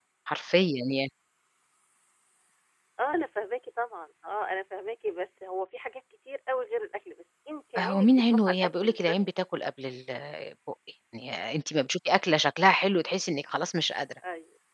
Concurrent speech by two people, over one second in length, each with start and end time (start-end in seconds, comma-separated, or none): 7.8-9.2